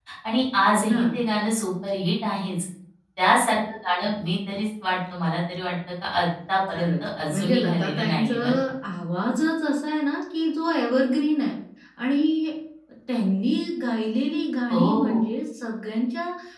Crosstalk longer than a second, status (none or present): present